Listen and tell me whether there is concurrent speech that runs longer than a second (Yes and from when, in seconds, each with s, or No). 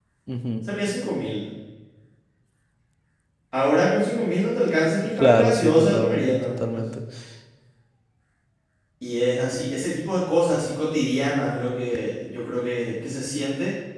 Yes, from 5.2 s